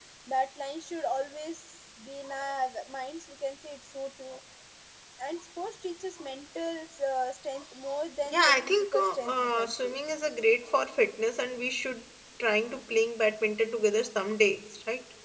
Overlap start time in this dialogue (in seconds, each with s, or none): 8.2 s